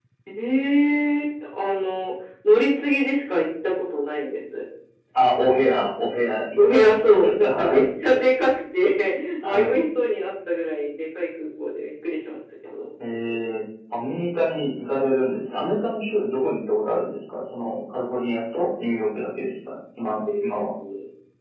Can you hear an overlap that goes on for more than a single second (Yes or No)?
Yes